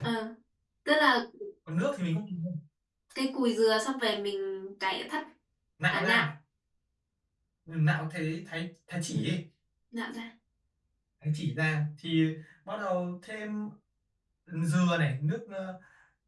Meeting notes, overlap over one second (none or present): none